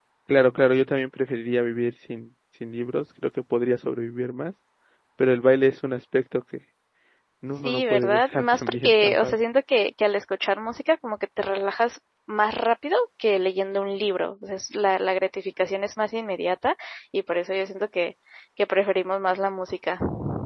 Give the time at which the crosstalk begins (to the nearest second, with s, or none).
8 s